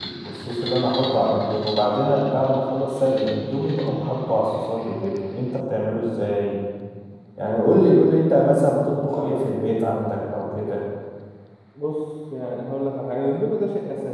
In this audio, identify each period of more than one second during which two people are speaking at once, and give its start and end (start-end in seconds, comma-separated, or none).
none